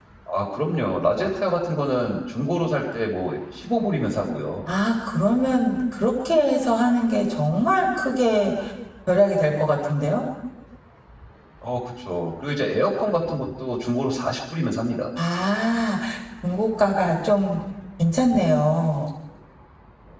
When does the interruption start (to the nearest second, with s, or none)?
none